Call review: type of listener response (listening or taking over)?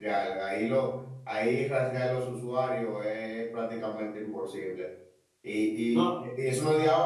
listening